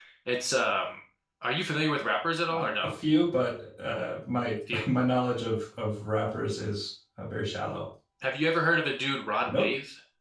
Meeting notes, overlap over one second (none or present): none